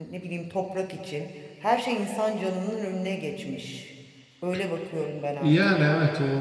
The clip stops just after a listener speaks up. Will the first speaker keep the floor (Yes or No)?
No